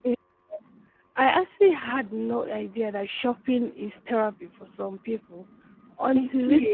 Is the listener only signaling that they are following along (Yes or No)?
Yes